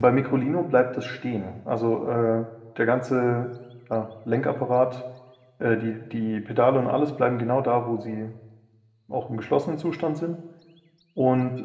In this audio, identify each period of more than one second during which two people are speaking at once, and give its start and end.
none

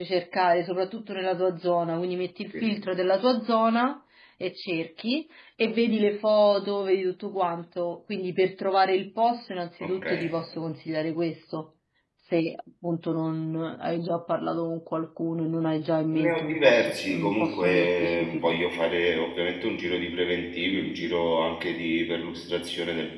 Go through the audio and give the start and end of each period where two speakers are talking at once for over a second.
16.1-18.6

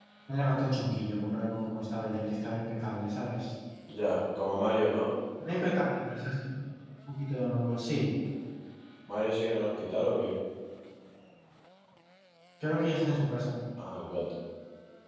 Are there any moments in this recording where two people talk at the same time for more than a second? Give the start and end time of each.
none

